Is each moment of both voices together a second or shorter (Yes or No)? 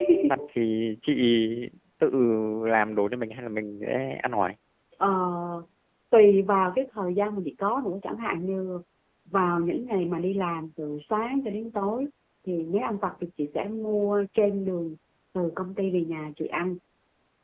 Yes